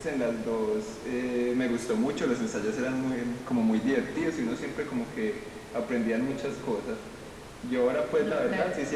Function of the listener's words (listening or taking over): listening